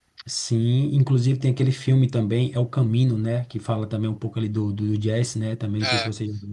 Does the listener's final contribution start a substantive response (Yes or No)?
Yes